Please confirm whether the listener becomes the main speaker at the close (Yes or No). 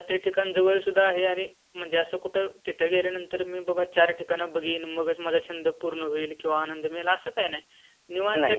No